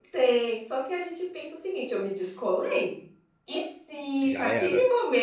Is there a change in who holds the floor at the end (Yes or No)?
No